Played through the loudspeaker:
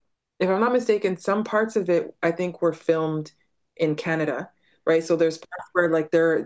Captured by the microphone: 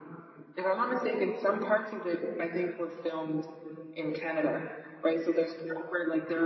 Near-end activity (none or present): none